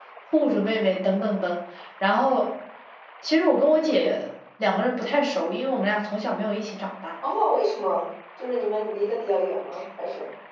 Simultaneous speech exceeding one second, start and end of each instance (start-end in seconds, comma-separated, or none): none